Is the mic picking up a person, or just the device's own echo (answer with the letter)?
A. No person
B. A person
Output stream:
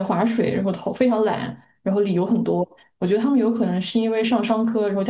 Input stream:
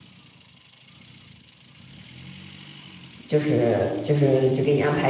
B